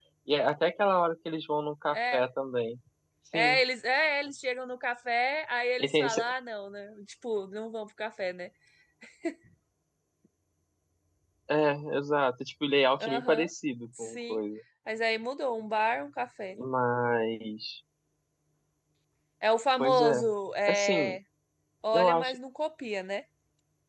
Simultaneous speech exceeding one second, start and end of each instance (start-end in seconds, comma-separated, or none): none